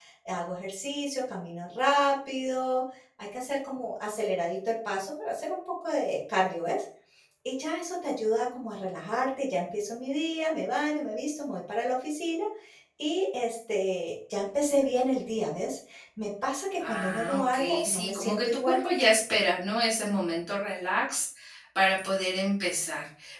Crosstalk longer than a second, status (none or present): present